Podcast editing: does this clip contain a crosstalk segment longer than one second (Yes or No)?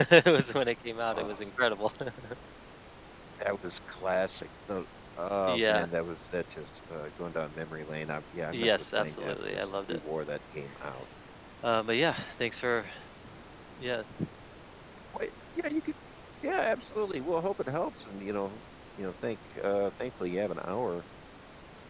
Yes